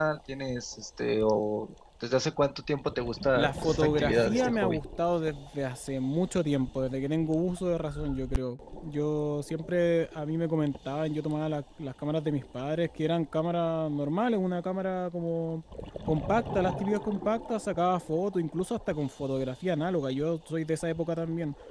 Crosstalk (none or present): present